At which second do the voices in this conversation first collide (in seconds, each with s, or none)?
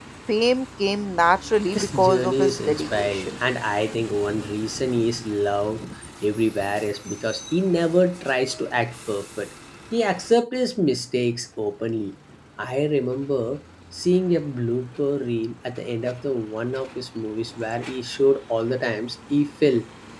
1.7 s